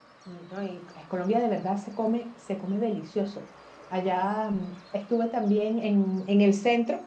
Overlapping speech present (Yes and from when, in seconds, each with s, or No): No